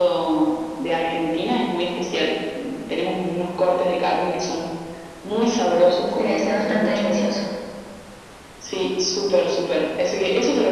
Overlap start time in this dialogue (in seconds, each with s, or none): 5.9 s